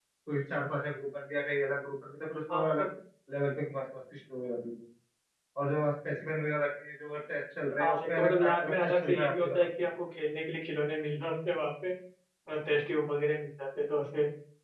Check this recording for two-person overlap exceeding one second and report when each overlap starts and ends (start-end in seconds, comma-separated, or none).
7.8-9.6